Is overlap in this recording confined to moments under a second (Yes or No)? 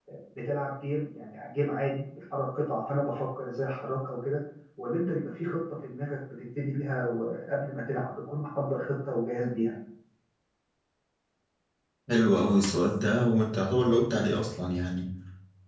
Yes